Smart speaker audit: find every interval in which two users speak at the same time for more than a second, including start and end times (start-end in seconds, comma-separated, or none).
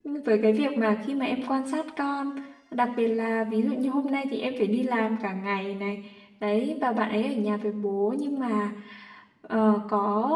none